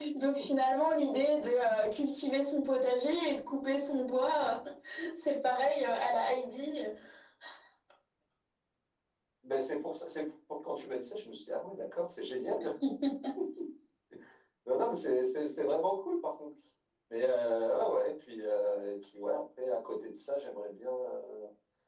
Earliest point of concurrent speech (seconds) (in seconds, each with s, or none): none